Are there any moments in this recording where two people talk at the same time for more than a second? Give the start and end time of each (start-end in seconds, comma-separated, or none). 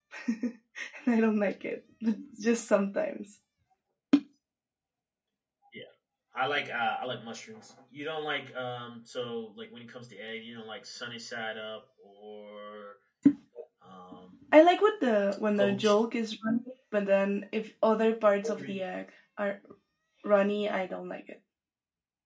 none